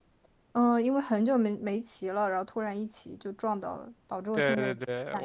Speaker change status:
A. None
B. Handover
B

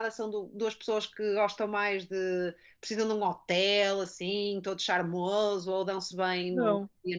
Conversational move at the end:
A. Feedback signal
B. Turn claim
B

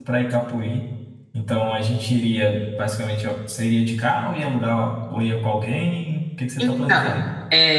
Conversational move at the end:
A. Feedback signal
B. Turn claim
B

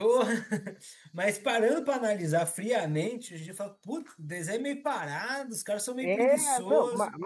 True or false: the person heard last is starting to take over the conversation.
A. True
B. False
A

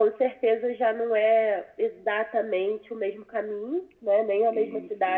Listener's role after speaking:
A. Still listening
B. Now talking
A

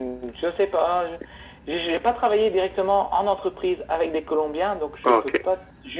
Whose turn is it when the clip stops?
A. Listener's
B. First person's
B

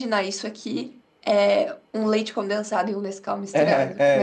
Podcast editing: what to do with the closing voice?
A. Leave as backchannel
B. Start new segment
B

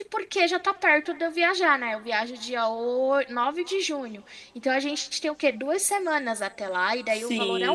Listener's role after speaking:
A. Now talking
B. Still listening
A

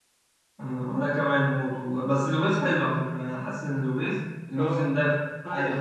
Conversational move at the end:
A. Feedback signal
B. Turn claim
B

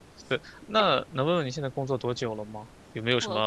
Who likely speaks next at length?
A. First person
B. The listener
A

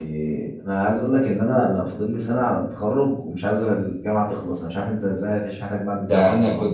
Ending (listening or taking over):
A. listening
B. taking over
B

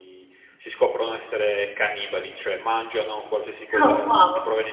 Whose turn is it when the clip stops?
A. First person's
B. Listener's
A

